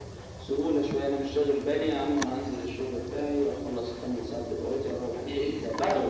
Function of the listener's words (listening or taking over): taking over